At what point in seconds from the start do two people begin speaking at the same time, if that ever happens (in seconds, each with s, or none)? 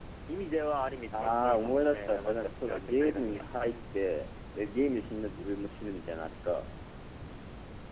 1.1 s